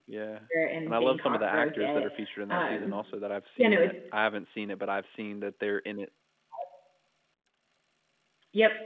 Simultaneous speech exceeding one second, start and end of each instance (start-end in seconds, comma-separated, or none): 0.9-2.1